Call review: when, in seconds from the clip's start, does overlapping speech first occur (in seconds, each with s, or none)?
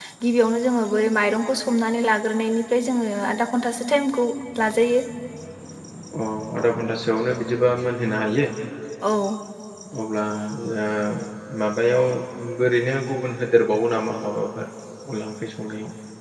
none